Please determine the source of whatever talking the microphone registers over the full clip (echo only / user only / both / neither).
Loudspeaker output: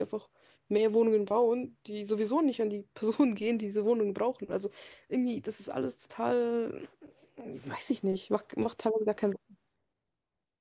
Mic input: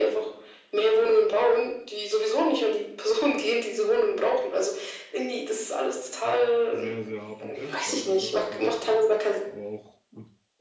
both